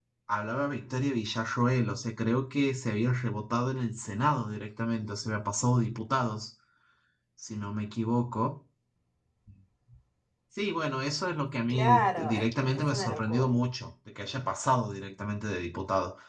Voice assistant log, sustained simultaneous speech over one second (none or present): present